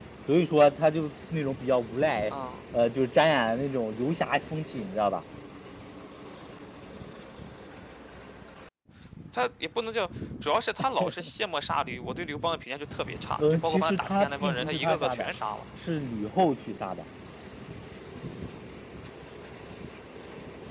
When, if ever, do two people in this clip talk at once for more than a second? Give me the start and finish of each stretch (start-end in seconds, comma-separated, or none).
13.4-15.3